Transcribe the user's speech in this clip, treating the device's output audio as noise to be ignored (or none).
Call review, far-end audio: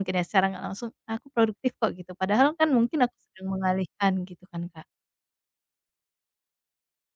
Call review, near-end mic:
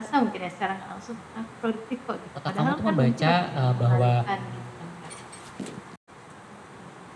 otak kamu tuh membaca, eee, bahwa